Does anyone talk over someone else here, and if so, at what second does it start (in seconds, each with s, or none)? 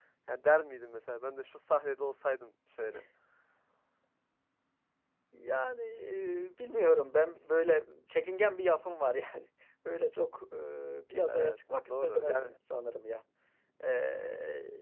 11.3 s